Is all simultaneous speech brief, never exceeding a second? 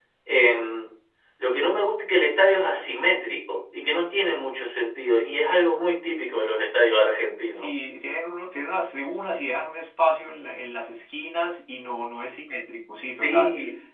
Yes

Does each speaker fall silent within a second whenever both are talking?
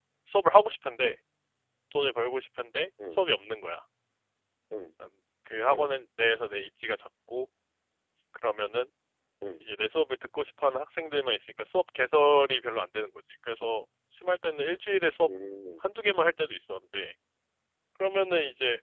Yes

